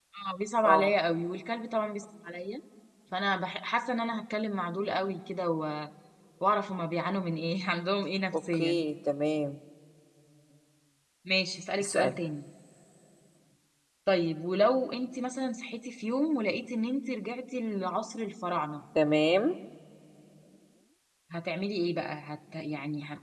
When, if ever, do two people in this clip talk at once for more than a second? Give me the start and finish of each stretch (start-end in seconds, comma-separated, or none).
none